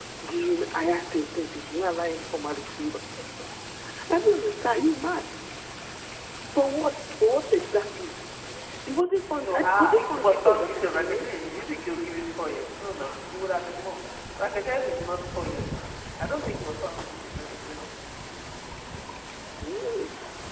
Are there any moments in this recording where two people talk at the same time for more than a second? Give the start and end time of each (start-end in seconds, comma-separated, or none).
9.3-11.3